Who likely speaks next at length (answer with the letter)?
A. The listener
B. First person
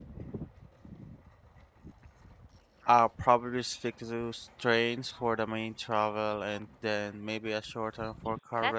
A